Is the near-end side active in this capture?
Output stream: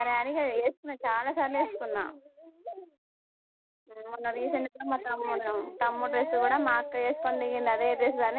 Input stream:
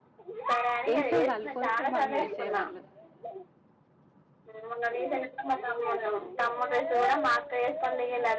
Yes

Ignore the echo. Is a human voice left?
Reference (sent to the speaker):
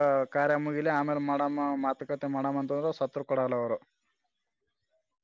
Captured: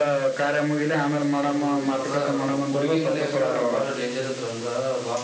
Yes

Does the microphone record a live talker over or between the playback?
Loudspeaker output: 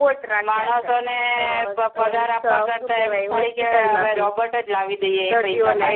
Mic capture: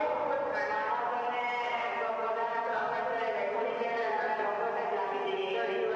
Yes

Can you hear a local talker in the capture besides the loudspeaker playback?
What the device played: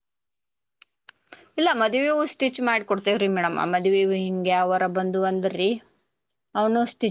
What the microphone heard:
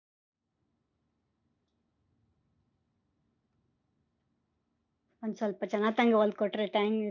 Yes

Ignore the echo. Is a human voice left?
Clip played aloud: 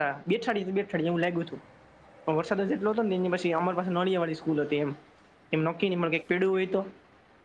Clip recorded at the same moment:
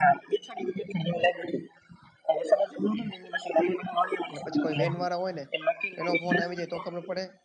Yes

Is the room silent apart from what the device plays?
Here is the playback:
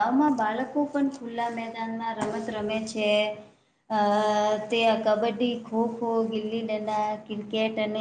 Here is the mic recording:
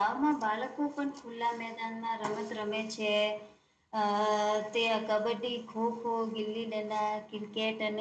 Yes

